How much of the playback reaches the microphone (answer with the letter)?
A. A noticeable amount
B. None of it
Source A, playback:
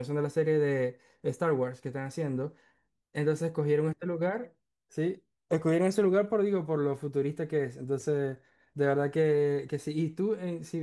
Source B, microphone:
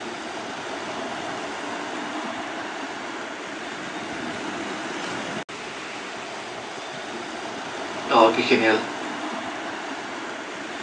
B